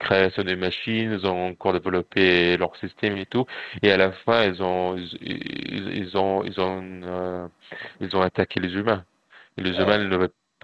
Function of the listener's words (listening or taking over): listening